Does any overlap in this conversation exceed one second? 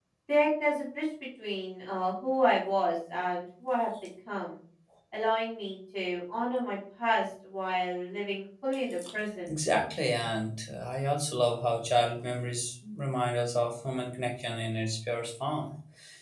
No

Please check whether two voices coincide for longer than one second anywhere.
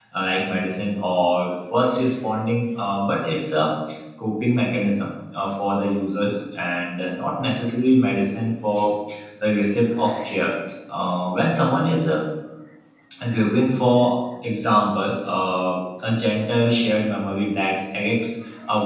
No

